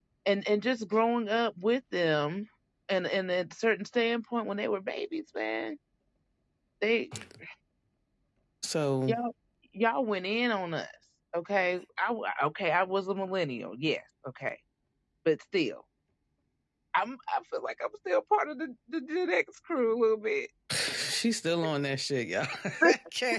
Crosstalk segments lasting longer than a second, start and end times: none

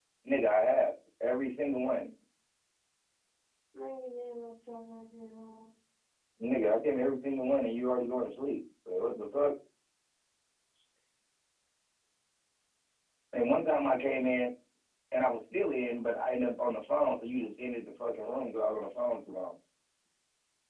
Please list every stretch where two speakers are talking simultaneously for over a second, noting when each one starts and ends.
none

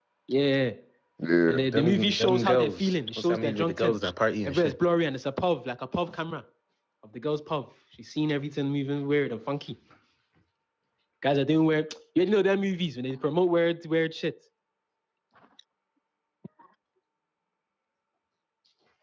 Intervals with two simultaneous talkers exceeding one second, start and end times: 1.5-4.0

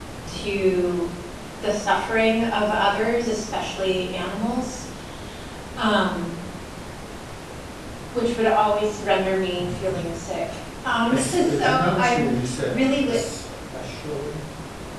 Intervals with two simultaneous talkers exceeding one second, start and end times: 11.1-12.3

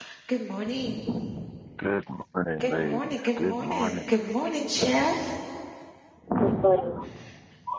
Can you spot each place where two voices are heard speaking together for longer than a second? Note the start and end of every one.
2.6-4.1

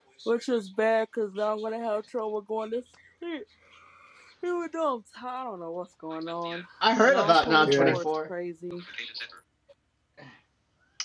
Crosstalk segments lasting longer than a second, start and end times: 7.0-8.3

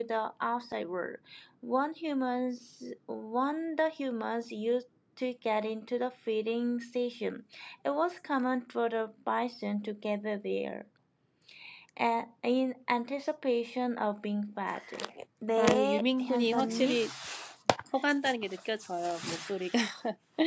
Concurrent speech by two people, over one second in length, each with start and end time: 15.6-17.1

